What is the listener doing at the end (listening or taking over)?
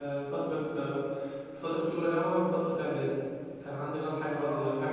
listening